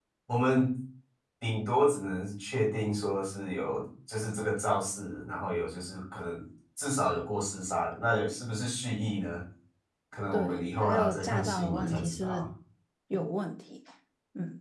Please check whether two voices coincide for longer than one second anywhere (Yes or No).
Yes